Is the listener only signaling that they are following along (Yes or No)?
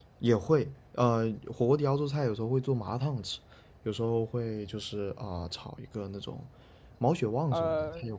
No